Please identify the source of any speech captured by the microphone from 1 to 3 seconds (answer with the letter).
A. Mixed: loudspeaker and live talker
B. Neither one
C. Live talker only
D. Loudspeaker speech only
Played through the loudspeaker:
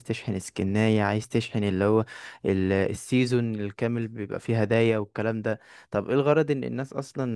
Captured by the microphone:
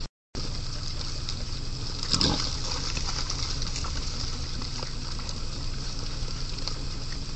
B